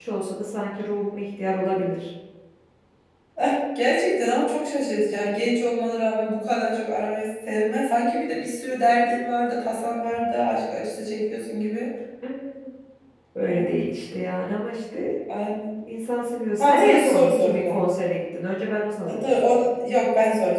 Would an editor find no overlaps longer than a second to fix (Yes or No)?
No